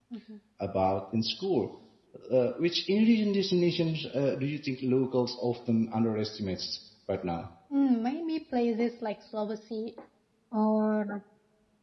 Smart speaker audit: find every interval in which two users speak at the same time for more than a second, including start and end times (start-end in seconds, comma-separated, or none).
none